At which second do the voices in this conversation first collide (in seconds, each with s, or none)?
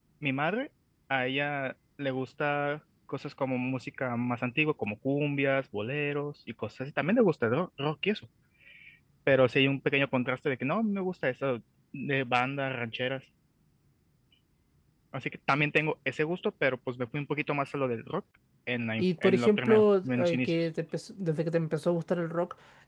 19.0 s